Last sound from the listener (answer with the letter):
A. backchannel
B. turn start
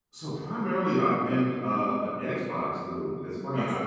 A